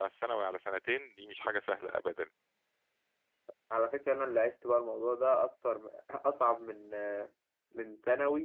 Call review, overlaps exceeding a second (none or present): none